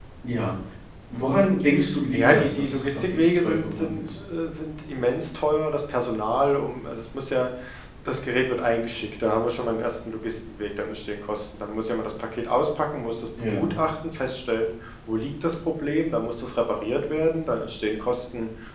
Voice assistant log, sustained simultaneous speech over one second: present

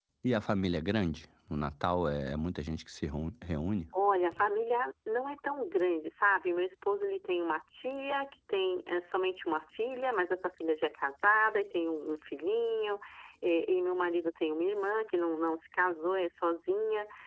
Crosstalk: none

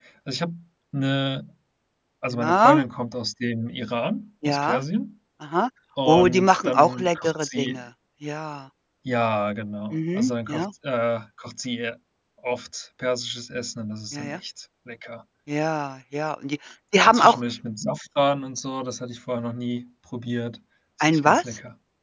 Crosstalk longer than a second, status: present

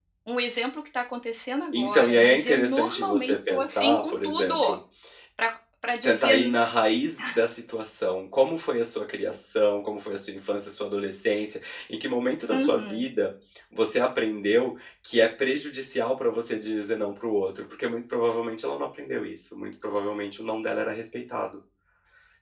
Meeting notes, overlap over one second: present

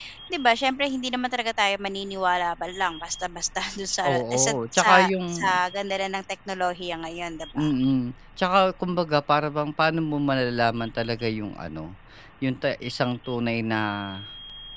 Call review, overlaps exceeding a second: present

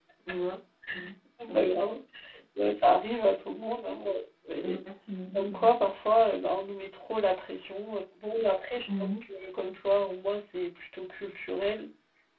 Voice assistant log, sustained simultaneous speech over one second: none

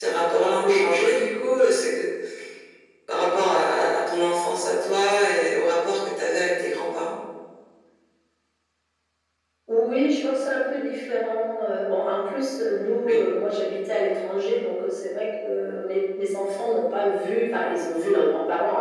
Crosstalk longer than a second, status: none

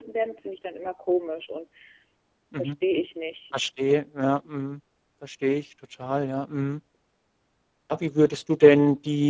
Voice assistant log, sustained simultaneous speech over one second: none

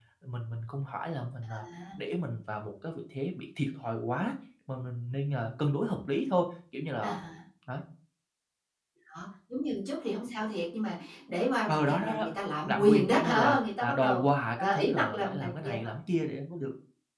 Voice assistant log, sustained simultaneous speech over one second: present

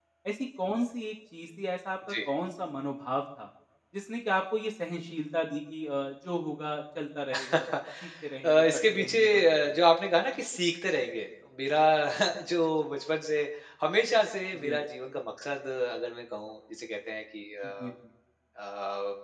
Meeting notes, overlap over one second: present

